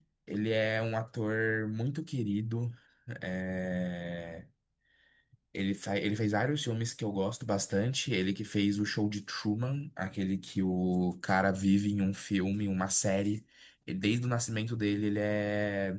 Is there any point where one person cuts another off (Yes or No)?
No